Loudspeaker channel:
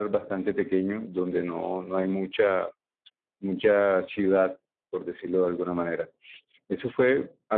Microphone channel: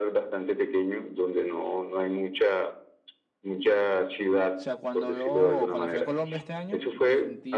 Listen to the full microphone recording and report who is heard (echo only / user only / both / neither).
both